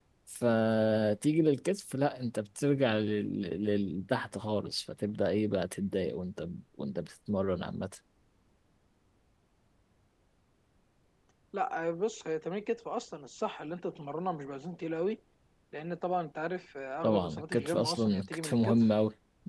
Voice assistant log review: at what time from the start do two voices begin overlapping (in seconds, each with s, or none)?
17.0 s